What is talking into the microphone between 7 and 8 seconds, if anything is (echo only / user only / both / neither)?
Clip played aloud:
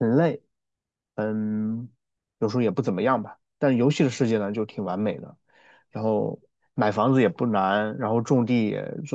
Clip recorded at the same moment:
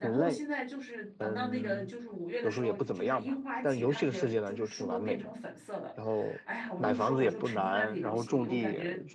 both